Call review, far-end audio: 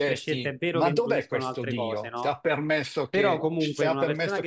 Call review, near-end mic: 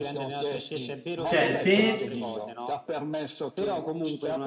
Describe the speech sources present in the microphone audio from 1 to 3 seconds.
both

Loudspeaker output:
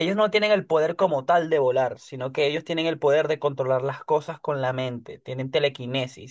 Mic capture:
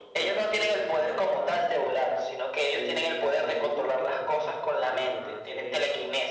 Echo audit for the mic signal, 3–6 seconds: both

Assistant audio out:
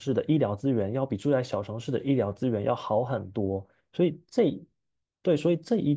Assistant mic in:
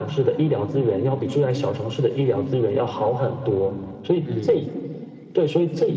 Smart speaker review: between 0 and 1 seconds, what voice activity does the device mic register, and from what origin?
echo only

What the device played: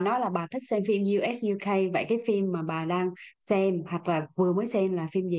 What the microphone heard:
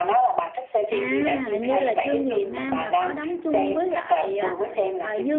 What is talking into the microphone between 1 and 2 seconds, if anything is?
both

